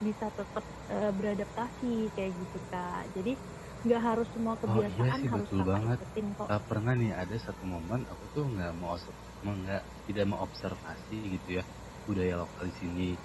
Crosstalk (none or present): present